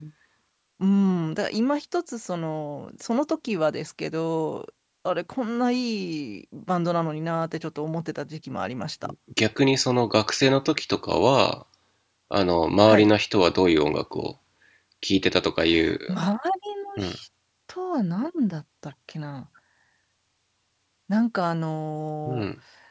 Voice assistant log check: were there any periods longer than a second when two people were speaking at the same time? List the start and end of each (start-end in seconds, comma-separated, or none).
none